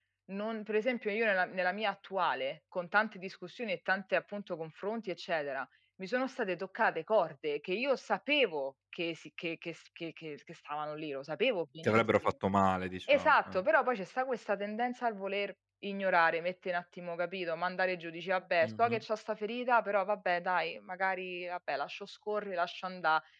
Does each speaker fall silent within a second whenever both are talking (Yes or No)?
Yes